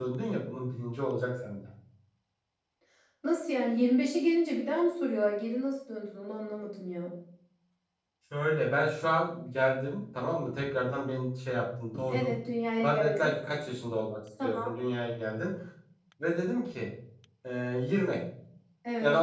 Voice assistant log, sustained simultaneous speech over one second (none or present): none